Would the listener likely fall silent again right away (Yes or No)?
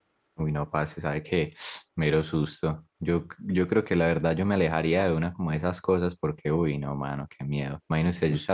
Yes